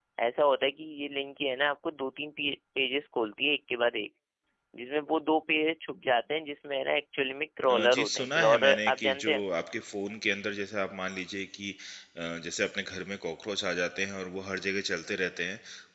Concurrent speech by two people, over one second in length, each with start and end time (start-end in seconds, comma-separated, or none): 7.7-9.4